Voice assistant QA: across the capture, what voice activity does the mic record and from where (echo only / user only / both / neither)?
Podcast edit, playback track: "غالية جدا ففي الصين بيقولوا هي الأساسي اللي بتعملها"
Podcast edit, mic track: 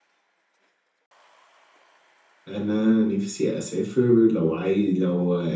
user only